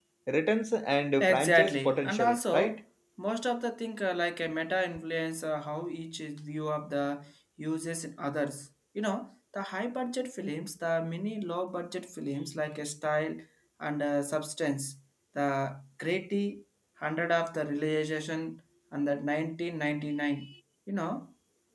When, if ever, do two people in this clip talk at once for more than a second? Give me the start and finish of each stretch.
1.2-2.8

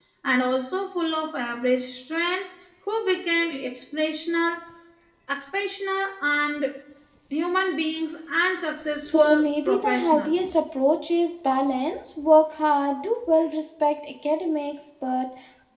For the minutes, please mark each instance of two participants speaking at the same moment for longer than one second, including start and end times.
9.0-10.5

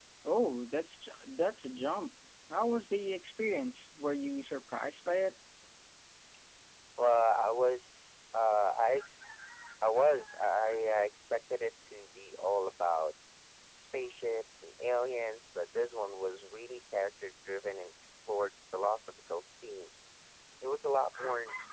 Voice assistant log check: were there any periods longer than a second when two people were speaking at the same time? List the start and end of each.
none

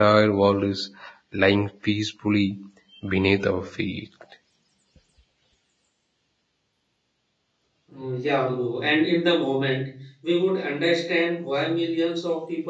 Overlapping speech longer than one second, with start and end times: none

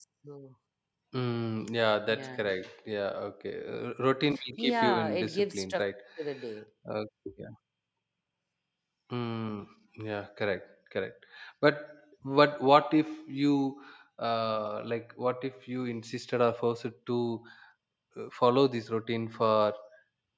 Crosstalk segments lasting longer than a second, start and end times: 4.6-5.9

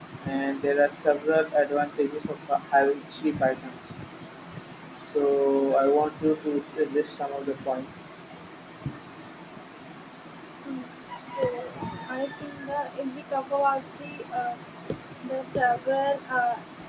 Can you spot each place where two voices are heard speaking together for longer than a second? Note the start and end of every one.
none

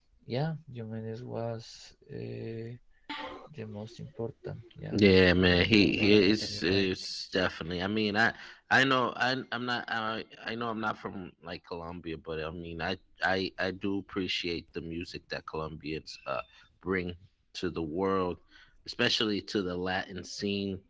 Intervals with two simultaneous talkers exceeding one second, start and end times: 4.9-6.9

